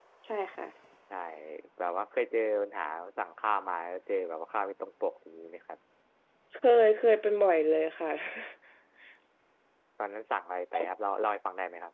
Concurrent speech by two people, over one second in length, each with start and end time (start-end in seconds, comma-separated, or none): none